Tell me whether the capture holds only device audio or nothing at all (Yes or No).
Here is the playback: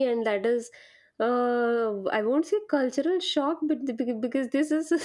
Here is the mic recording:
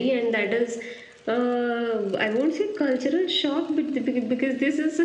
Yes